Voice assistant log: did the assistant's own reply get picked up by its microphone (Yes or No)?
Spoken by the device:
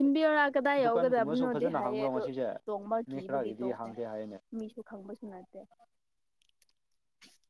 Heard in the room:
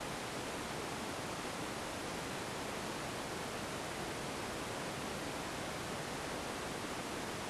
No